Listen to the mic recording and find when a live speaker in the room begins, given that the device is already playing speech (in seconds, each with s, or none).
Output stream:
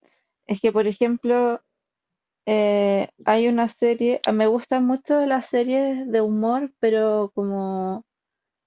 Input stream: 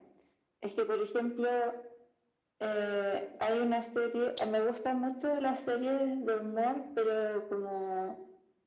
none